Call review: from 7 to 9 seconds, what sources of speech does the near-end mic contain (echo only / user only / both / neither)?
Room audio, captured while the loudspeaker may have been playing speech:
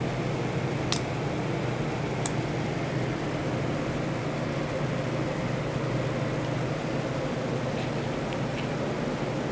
neither